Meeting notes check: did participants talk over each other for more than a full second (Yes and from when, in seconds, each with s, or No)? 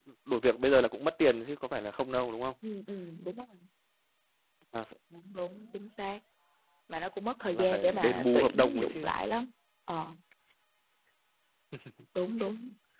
Yes, from 7.5 s